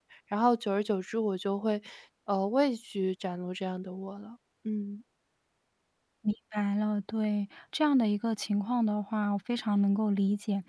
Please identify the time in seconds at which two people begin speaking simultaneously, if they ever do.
none

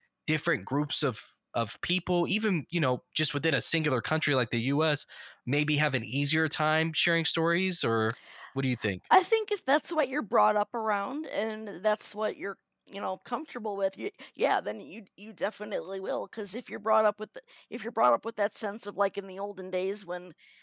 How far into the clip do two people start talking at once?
none

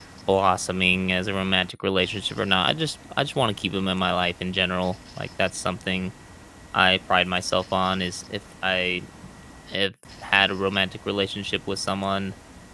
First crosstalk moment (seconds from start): none

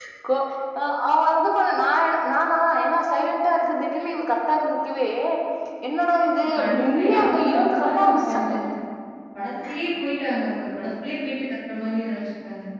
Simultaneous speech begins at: 6.5 s

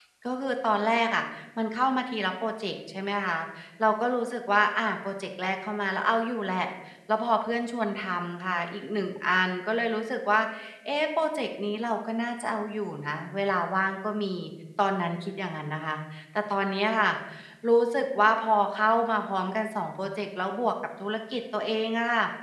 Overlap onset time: none

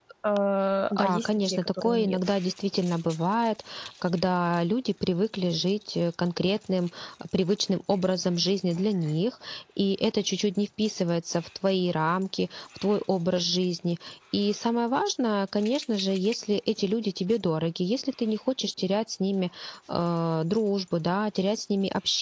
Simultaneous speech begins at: 0.9 s

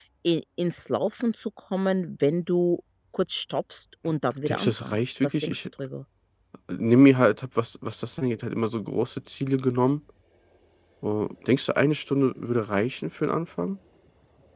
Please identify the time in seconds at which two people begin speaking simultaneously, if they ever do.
4.5 s

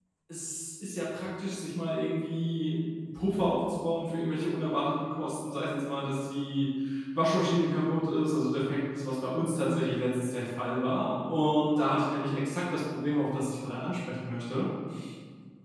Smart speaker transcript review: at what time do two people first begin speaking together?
none

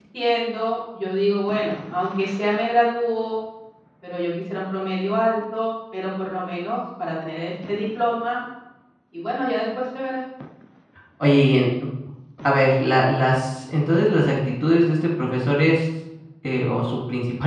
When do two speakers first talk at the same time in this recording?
none

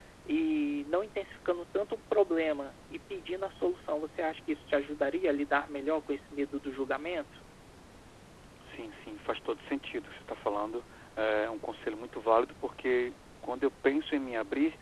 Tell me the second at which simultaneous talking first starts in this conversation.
none

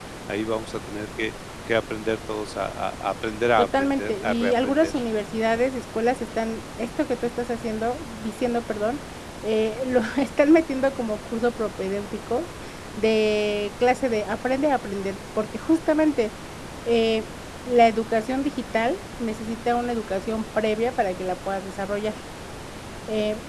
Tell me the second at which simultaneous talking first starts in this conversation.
3.6 s

